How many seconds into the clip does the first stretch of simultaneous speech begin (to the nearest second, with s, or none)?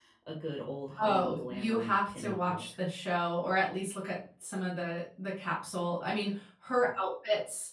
1 s